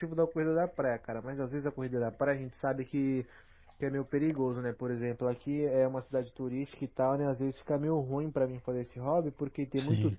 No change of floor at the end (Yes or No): Yes